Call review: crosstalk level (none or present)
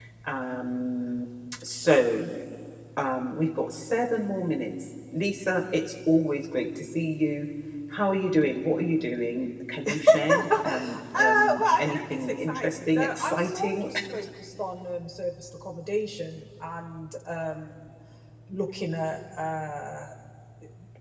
present